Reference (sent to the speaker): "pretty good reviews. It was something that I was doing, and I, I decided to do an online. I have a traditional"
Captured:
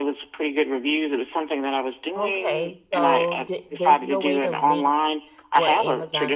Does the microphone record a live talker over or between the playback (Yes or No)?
Yes